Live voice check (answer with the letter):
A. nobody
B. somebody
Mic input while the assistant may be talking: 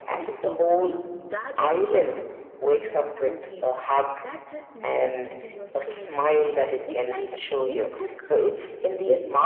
B